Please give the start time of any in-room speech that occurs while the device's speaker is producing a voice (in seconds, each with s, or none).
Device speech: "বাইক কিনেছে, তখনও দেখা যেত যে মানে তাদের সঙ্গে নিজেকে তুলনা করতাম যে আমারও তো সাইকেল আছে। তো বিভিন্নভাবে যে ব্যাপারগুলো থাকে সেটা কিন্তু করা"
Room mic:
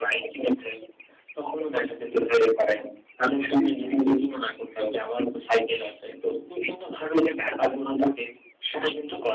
3.6 s